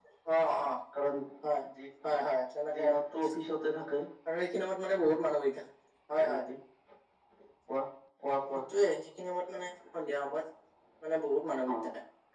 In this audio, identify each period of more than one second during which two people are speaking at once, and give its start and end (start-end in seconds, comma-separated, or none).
none